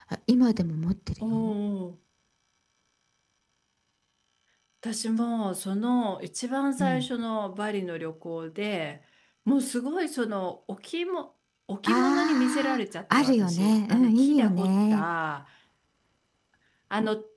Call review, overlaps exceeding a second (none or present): present